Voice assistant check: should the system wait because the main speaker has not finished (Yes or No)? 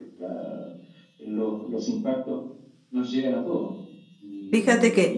No